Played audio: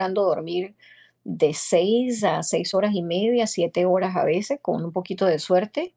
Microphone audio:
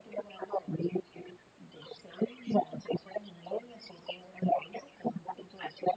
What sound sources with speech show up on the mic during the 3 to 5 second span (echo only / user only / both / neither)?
echo only